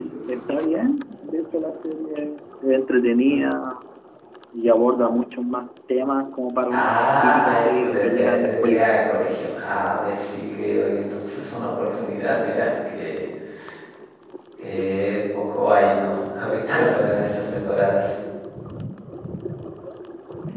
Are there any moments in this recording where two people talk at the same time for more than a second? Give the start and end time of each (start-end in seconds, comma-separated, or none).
6.7-8.8